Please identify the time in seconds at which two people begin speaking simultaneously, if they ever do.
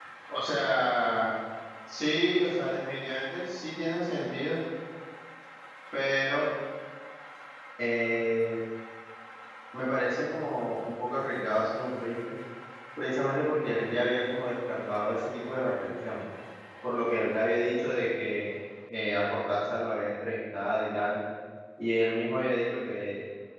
none

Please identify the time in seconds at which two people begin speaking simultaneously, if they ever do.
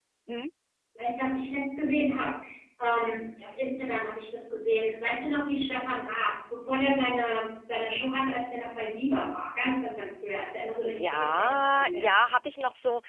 10.8 s

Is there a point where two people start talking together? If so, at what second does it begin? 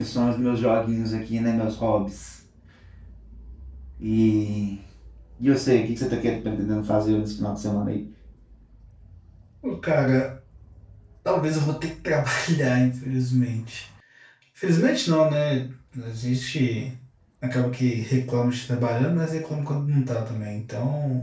none

